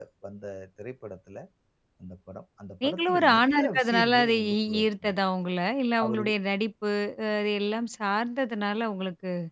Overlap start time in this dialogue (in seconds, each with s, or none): 2.8 s